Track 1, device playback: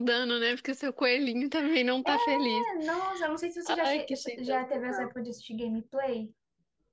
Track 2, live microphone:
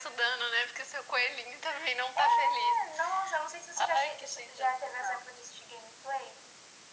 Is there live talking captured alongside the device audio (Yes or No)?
No